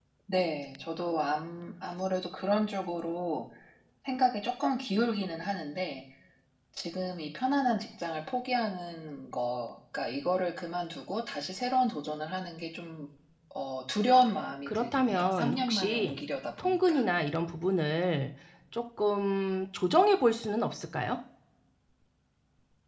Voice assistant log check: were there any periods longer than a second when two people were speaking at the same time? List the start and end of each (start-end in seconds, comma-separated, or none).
14.7-16.2